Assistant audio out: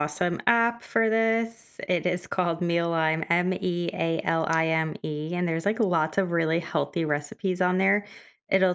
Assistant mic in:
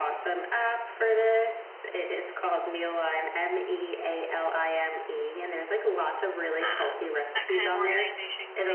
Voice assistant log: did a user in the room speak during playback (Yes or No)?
Yes